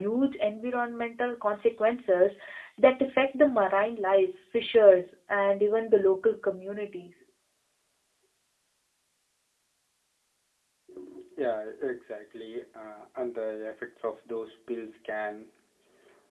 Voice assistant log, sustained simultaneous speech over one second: none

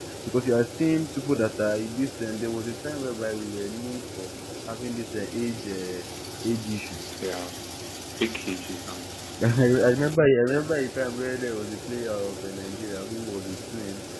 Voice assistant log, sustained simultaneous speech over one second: none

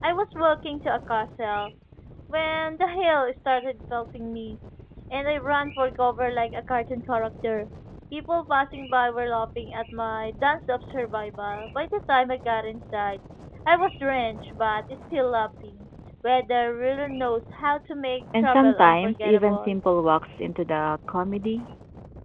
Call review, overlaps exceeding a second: present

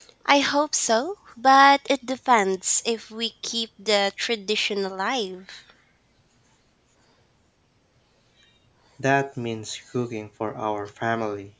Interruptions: none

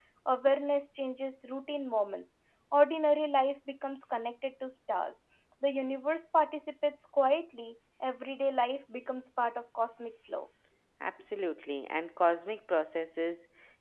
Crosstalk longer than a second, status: none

